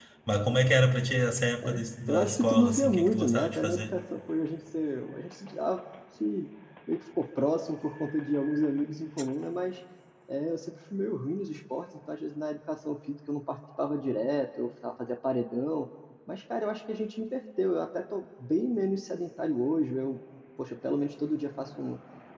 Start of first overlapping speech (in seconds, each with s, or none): 1.6 s